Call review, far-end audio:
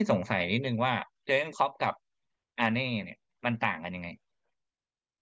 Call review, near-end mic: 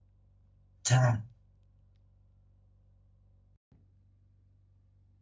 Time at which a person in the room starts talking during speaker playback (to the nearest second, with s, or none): 1 s